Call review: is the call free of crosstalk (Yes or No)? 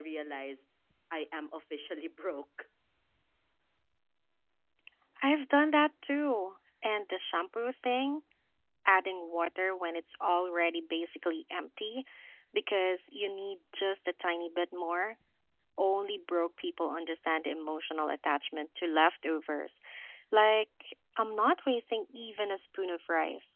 Yes